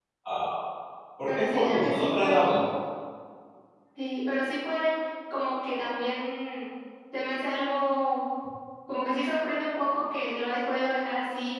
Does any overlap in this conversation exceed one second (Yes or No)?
Yes